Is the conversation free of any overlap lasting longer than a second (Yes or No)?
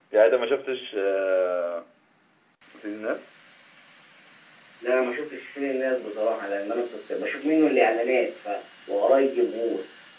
Yes